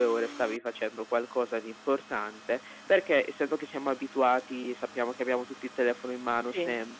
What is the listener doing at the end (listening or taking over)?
listening